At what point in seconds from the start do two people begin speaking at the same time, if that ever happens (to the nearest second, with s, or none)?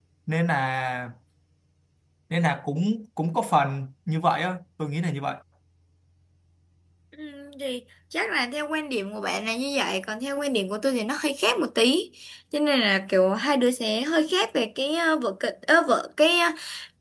none